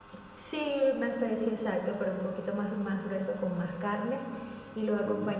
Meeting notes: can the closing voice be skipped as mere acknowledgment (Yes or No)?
Yes